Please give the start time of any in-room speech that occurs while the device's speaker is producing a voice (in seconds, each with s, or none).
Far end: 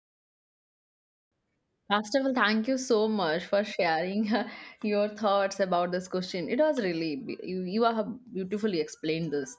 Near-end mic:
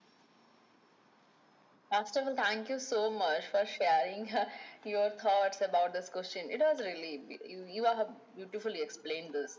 none